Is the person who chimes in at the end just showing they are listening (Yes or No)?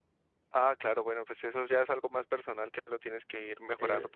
No